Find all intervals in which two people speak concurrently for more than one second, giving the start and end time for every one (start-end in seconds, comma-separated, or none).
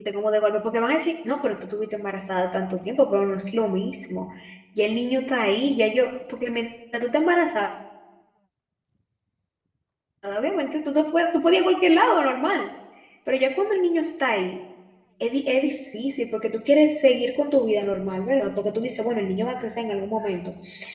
none